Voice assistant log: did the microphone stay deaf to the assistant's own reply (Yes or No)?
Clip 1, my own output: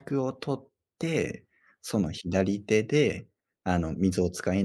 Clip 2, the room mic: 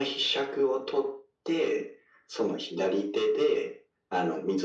No